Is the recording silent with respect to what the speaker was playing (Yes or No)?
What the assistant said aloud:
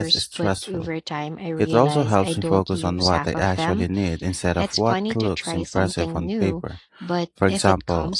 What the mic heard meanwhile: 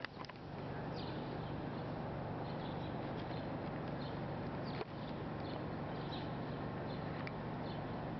Yes